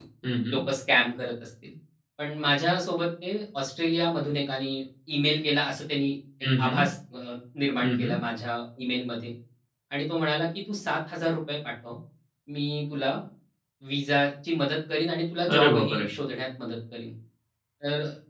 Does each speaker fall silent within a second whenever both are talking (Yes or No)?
Yes